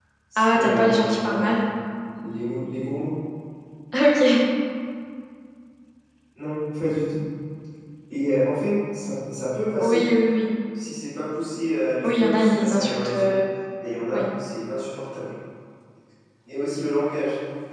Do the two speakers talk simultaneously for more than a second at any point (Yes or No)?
Yes